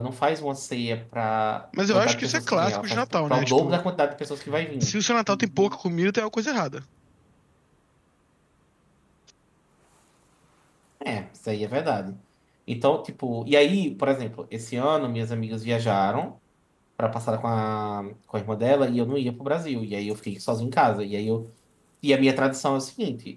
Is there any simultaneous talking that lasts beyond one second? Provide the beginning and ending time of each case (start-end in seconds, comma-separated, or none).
1.9-3.8